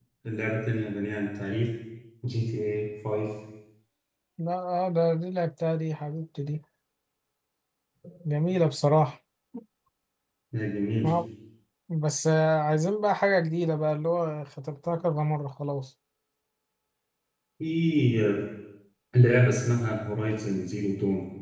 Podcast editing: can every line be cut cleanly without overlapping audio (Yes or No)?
Yes